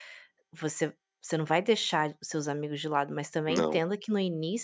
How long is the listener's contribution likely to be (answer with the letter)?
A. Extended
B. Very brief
B